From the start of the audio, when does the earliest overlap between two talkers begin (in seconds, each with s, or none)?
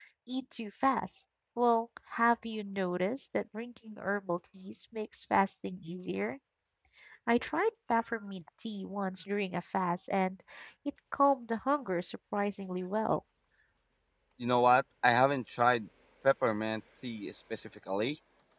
none